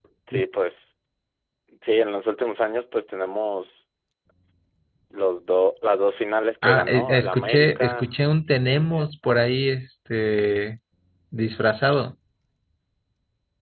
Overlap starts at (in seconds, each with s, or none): 6.6 s